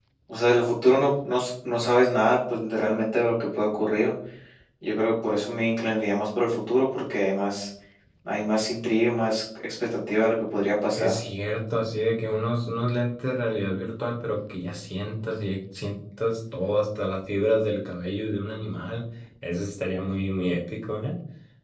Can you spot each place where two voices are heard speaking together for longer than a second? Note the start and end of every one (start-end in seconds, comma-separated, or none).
none